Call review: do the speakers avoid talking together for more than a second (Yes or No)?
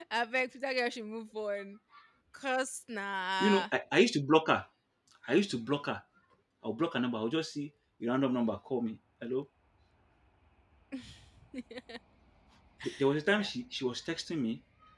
Yes